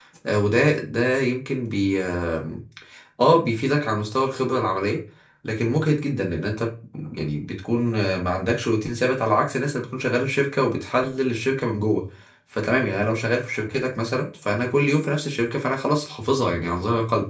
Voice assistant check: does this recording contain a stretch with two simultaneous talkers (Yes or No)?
No